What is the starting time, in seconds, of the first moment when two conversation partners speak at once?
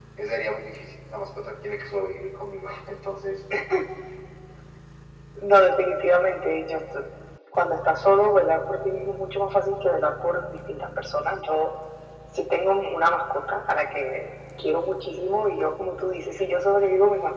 none

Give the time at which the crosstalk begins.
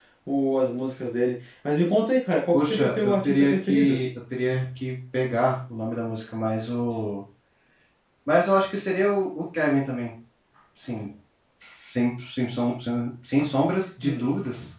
2.5 s

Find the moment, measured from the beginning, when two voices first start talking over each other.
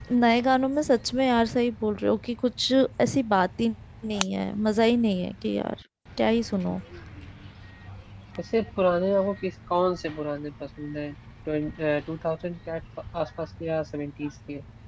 none

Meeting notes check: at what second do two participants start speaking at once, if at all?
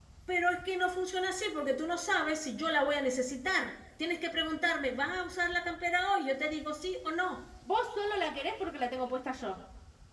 none

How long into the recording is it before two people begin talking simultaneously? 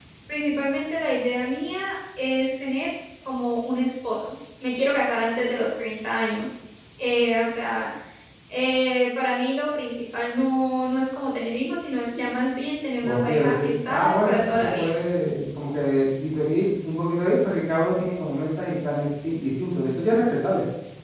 13.0 s

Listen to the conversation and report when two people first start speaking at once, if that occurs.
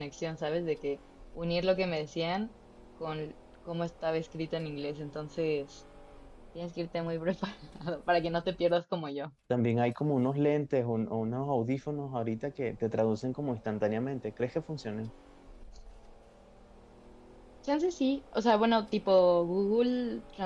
none

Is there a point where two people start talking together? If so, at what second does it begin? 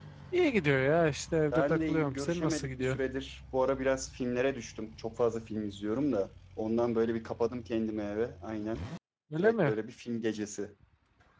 1.5 s

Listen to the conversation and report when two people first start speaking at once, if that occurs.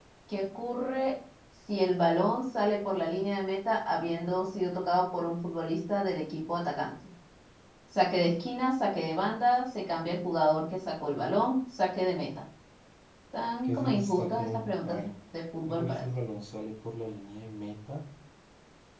13.6 s

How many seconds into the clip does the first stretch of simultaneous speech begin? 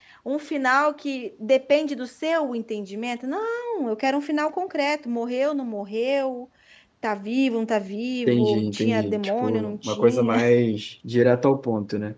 8.3 s

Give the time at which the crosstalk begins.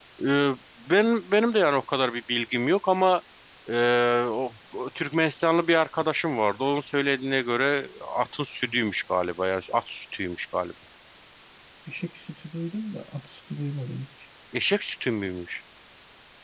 none

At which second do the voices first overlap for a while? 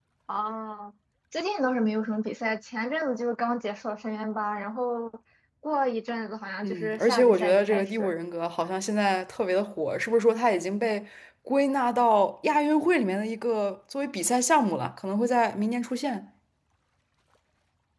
6.6 s

